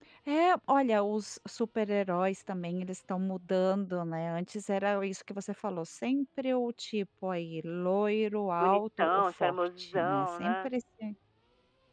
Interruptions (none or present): present